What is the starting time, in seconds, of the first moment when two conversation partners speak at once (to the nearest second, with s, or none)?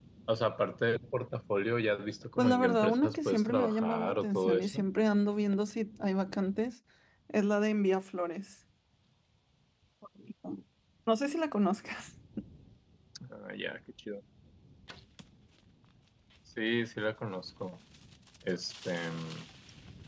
2 s